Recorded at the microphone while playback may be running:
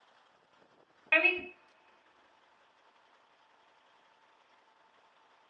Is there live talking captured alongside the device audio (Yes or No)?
Yes